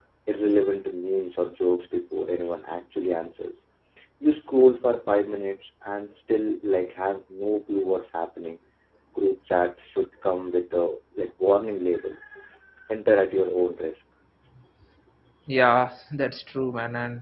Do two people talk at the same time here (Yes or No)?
No